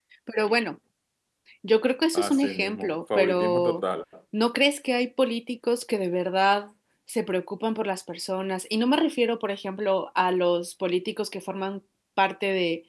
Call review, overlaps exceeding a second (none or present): present